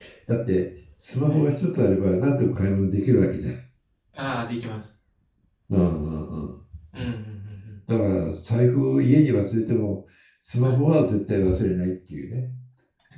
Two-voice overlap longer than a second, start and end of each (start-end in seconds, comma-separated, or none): none